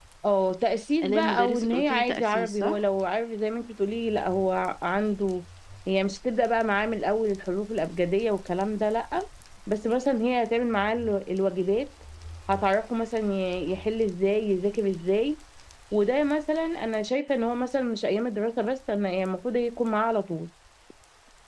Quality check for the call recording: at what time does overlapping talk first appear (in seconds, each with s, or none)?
1.0 s